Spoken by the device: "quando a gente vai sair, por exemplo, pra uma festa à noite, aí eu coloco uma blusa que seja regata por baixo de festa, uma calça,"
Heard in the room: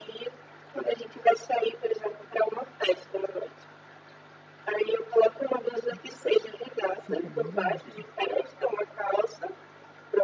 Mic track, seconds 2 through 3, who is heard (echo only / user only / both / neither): echo only